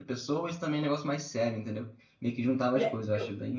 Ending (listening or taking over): taking over